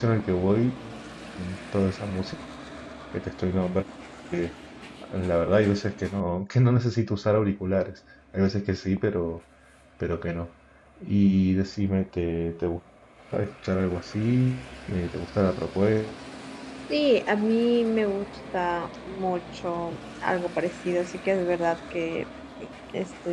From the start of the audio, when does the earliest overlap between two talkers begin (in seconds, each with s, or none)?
none